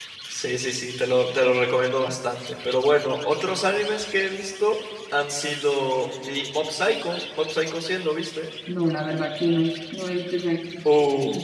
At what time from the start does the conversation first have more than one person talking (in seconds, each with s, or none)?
none